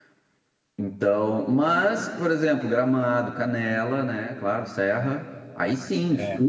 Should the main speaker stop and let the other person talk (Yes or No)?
No